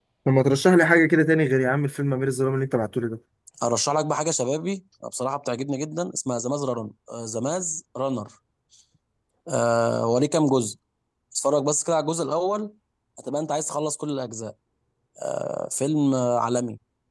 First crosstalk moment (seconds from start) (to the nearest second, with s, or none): none